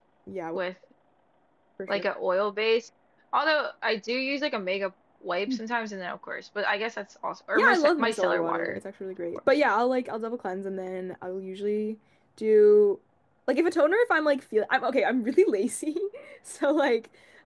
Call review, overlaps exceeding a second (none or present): present